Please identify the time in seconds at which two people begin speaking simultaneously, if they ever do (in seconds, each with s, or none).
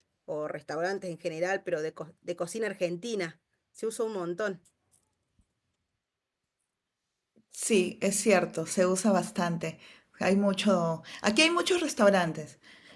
none